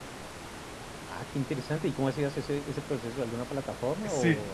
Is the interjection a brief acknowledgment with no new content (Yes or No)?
No